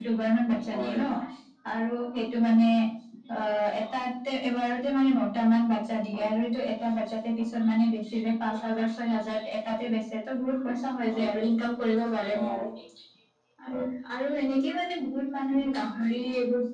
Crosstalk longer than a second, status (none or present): none